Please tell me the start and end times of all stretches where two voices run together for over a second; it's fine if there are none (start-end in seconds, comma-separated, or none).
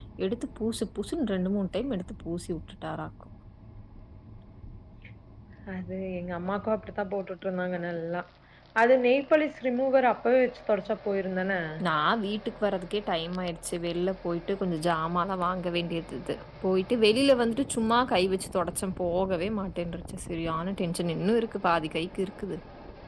none